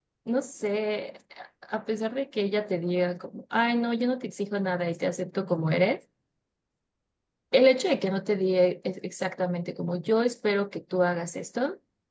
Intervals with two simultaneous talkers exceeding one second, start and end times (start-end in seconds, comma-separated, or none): none